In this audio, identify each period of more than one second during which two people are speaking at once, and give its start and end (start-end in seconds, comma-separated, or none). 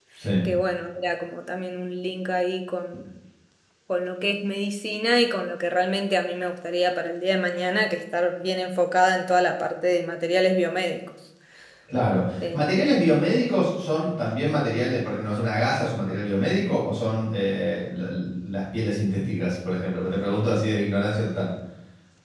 none